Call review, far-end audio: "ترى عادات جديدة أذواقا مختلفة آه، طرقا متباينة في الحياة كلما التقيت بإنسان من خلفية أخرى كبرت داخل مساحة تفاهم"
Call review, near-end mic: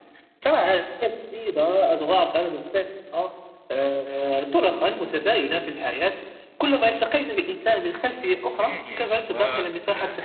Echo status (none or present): present